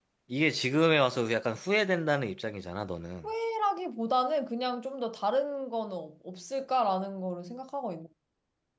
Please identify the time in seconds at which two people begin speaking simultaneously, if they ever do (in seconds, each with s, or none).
none